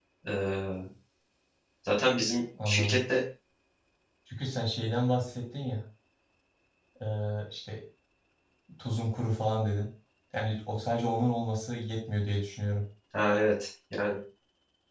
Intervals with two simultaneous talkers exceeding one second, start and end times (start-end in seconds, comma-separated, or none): none